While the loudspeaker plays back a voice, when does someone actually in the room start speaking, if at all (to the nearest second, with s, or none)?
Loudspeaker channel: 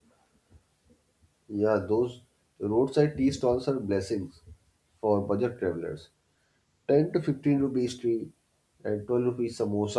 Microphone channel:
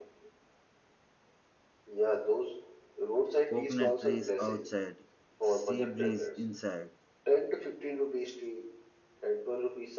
3 s